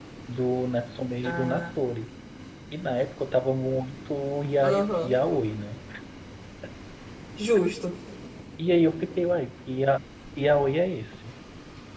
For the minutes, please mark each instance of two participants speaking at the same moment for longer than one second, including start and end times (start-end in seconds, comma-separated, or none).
none